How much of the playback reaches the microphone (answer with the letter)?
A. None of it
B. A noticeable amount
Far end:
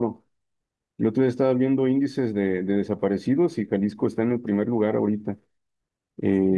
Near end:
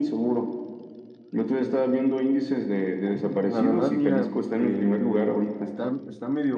B